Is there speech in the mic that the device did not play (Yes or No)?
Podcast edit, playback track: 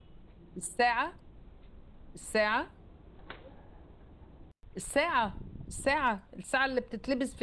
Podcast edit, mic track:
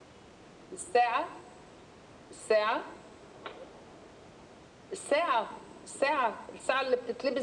No